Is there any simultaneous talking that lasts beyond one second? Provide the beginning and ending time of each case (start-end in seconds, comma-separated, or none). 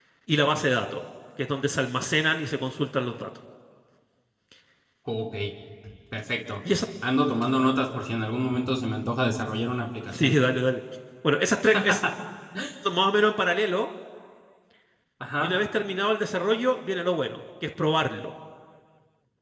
none